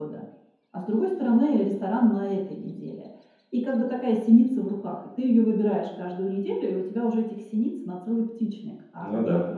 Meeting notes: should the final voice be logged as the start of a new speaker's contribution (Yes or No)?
No